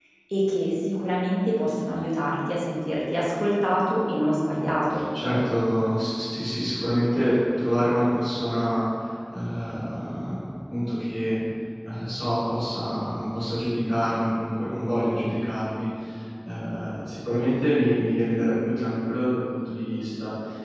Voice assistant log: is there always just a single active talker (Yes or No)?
Yes